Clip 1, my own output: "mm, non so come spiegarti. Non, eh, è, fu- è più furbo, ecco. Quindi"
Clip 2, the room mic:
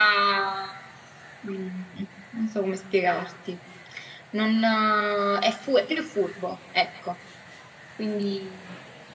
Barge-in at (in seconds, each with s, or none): none